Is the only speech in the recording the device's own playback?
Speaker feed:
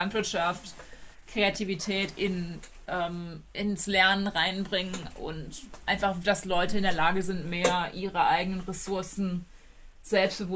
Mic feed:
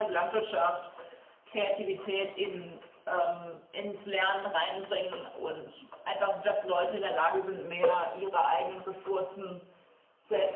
Yes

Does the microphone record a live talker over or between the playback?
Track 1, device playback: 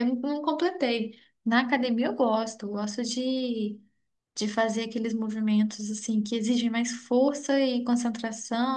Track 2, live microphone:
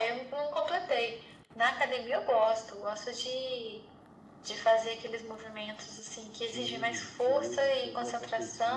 Yes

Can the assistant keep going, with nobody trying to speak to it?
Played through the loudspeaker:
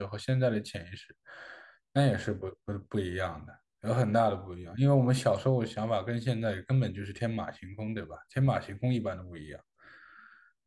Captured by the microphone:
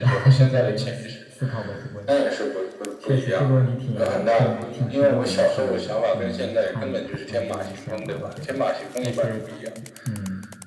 No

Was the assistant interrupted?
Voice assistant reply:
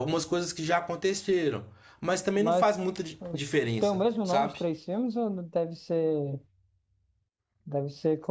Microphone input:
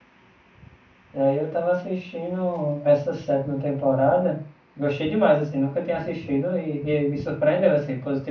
Yes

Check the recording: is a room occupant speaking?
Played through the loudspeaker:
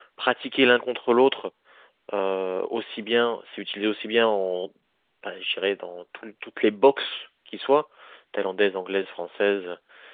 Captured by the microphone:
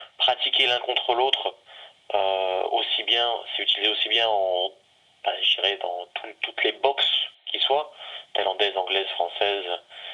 No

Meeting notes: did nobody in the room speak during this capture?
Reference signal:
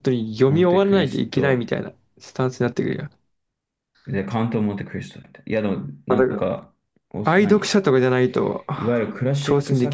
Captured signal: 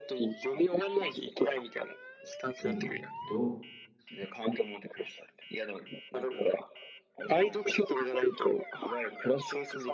No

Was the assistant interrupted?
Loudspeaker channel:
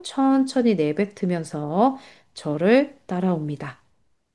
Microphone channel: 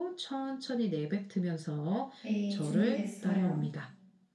Yes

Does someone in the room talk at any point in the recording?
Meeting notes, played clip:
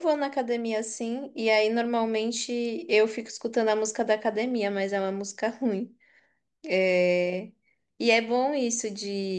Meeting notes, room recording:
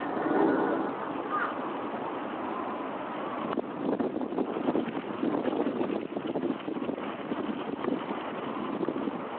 No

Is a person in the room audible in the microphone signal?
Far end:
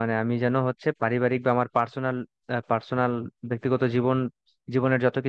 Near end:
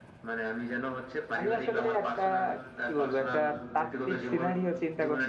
Yes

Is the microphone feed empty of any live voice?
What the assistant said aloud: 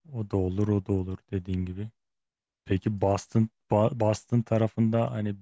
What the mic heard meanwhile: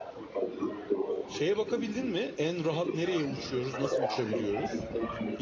No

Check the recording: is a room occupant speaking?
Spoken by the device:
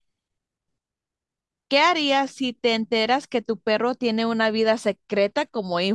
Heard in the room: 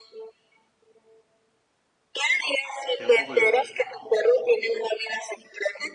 Yes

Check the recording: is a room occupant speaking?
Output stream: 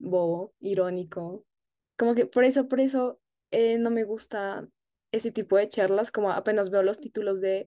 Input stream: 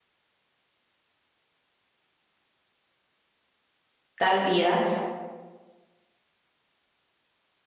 Yes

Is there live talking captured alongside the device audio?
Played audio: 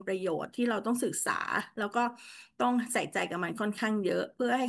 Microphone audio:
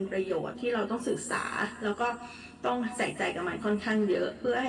No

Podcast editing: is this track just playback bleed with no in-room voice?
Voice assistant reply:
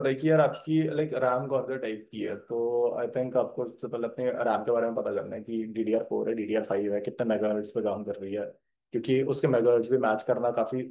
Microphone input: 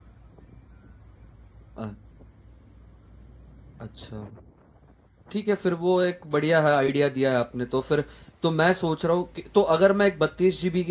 No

